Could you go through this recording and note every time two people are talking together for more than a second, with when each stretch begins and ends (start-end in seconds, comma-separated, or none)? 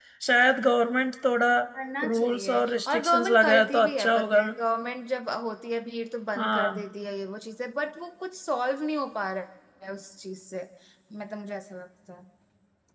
2.0-4.4